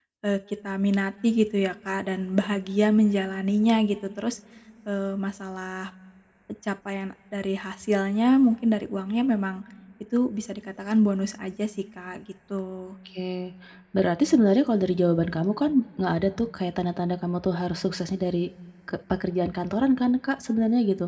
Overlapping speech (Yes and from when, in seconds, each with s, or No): No